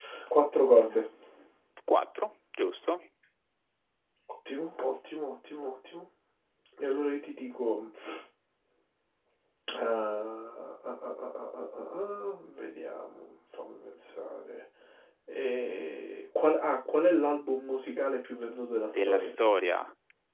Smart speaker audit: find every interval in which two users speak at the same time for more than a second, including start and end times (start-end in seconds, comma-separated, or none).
none